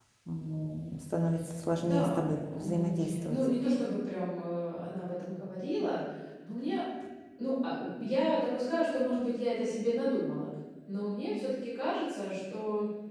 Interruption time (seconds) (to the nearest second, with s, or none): 2 s